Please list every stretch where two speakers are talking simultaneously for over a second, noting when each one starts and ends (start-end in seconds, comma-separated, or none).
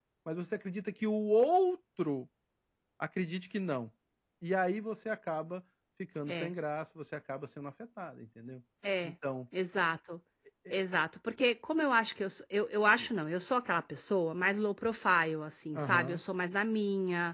none